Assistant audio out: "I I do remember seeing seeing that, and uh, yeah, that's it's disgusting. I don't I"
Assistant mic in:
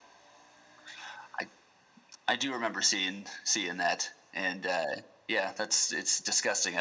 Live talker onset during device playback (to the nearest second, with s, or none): none